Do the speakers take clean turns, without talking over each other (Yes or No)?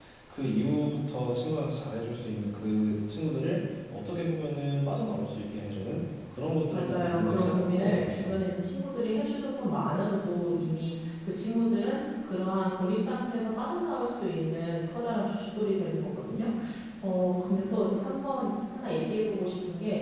No